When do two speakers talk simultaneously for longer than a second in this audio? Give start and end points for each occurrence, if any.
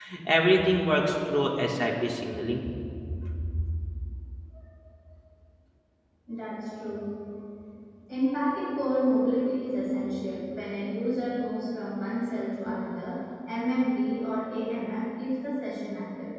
none

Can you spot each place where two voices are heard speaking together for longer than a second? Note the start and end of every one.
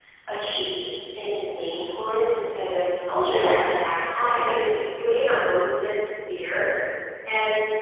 3.2-4.7

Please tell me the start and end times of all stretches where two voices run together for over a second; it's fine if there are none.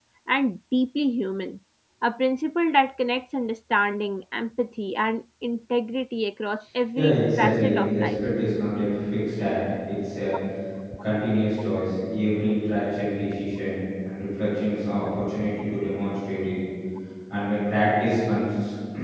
7.0-8.2

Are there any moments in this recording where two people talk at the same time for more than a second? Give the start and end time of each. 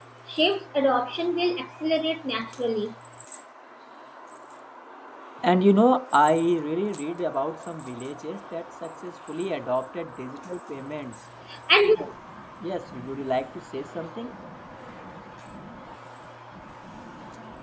none

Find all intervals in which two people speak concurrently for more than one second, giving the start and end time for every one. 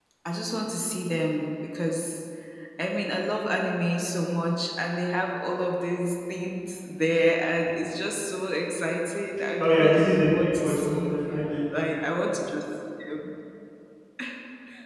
9.6-11.1

